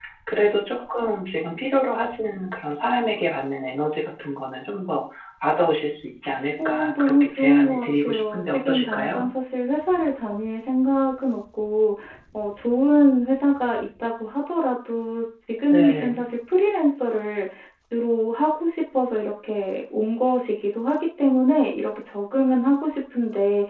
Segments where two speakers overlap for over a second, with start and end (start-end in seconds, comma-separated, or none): 6.6-9.2